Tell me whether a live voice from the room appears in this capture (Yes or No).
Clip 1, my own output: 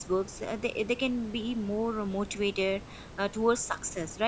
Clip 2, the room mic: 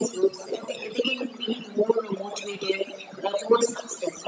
No